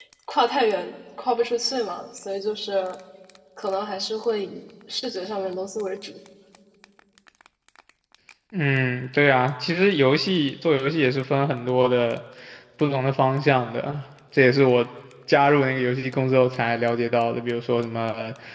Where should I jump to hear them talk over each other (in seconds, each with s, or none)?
none